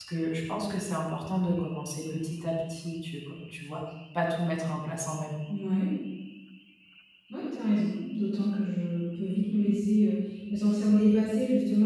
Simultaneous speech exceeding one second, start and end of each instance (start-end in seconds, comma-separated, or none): none